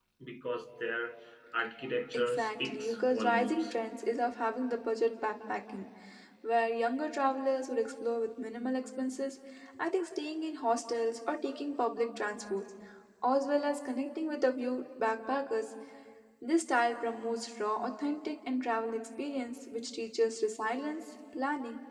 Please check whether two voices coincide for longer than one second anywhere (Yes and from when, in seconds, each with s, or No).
Yes, from 2.1 s